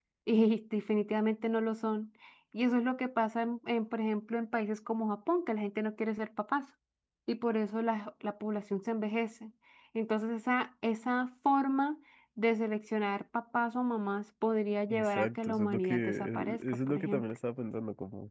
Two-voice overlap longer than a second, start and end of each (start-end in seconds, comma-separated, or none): 14.9-17.4